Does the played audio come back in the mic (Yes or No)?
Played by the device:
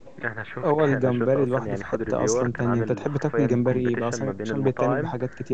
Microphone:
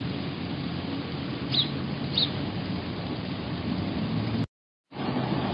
No